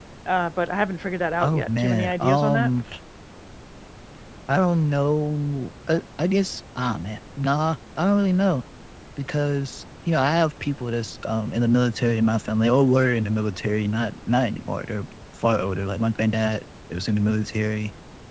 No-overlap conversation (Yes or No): No